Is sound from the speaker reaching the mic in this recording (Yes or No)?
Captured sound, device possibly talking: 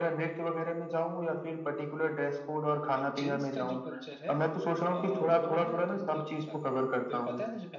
Yes